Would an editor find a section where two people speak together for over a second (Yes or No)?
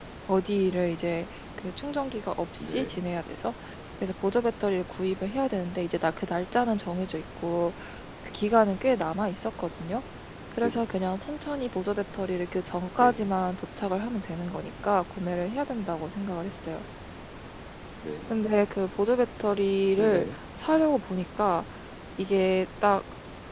No